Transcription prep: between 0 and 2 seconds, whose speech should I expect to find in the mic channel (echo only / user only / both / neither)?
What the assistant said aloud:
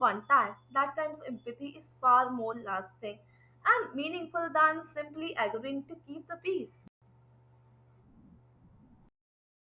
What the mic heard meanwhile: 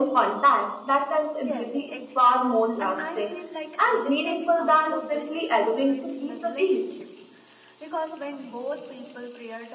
both